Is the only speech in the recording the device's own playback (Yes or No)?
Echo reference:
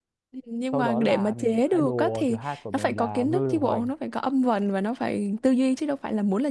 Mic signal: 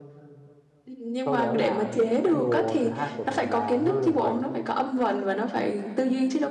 Yes